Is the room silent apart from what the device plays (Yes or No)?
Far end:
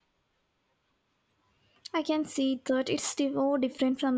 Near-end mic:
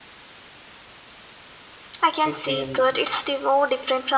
No